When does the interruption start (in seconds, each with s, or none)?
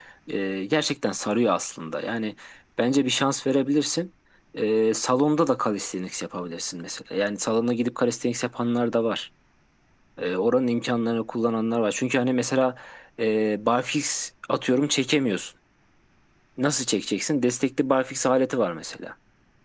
none